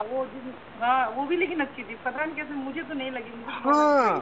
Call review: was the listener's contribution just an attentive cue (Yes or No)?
No